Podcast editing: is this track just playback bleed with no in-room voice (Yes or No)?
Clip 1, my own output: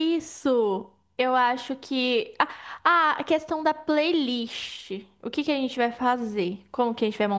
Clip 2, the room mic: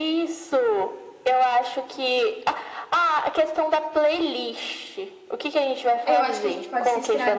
No